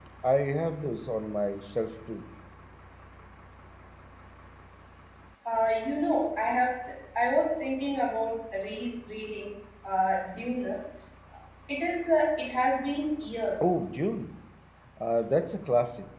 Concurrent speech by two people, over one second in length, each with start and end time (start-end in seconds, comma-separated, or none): none